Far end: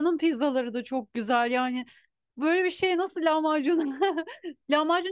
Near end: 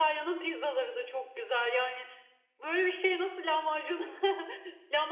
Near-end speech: none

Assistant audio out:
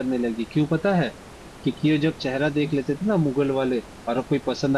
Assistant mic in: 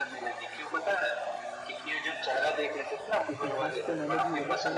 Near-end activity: present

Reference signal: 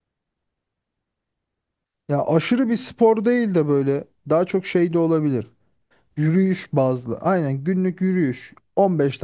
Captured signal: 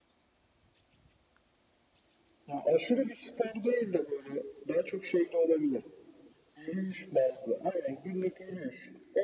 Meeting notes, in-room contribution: none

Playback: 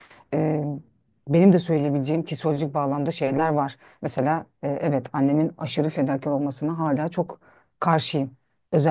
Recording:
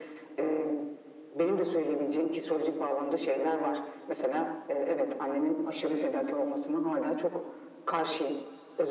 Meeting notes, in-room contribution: none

